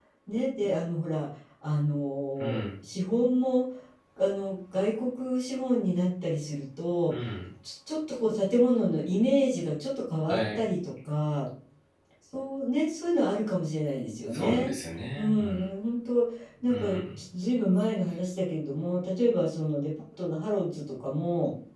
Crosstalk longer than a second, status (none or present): none